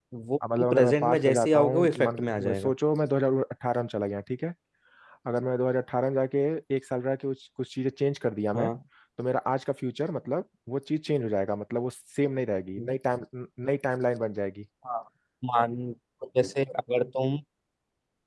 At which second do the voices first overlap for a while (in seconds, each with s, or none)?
0.6 s